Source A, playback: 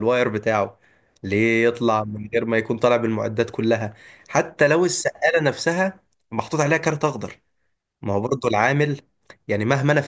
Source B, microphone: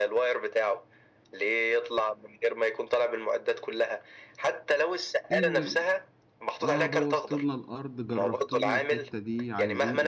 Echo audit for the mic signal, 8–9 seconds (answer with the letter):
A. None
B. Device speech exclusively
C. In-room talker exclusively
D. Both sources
D